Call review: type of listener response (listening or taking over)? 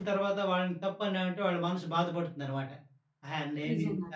listening